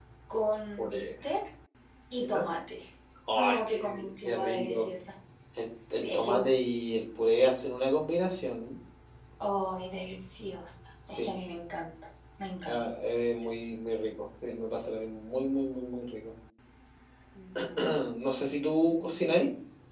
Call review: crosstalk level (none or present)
present